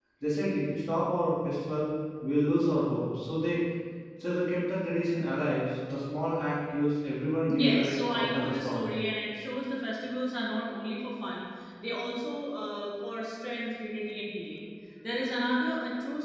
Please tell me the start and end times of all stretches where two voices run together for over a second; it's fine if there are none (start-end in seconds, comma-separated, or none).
7.5-8.9